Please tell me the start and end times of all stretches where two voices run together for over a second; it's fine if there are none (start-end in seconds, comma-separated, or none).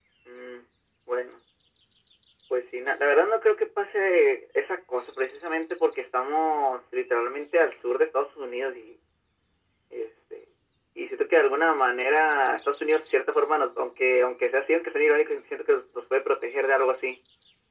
none